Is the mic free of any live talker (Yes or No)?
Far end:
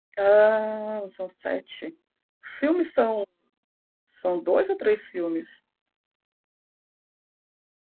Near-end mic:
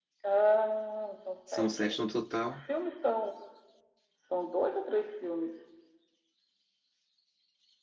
No